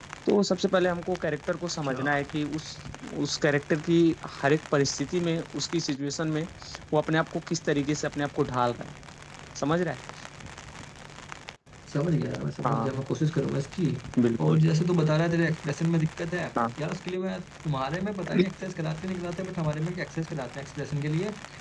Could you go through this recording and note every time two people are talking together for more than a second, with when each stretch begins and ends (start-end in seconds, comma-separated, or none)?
none